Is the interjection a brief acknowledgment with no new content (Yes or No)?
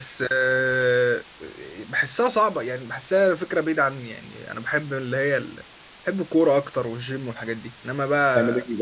No